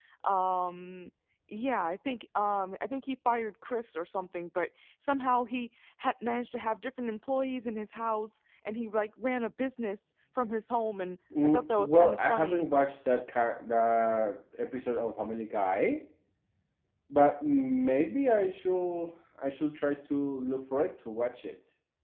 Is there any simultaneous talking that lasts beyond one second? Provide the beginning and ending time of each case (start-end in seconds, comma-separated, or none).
11.4-12.7